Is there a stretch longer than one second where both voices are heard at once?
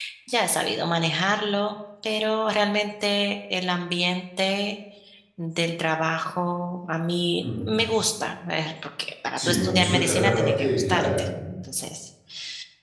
Yes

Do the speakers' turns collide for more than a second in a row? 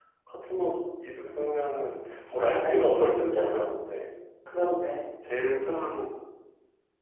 Yes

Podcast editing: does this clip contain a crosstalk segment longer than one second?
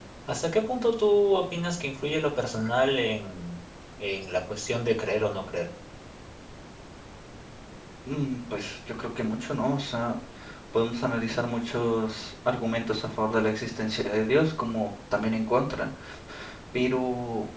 No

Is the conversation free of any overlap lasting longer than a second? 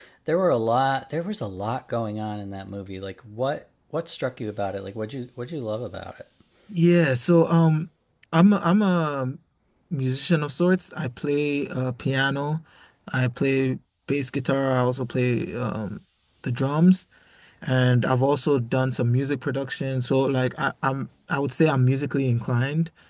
Yes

